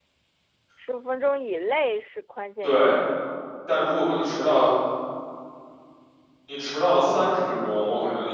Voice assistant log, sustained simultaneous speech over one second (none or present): none